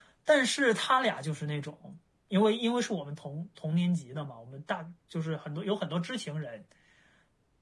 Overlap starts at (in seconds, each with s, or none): none